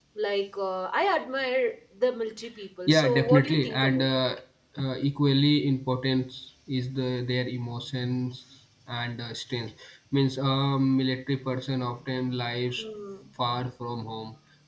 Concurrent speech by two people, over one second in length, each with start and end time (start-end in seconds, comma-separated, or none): 2.9-4.1